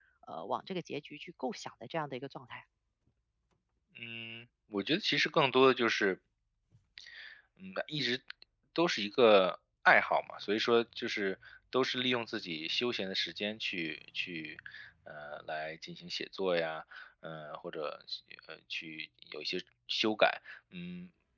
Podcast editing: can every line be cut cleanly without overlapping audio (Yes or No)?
Yes